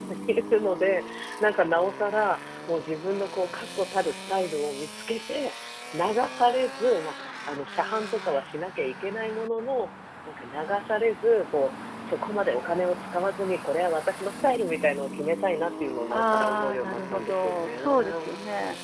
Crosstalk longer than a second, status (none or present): present